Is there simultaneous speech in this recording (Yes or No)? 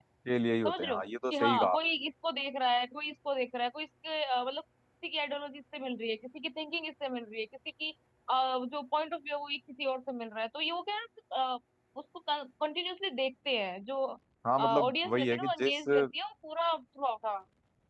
Yes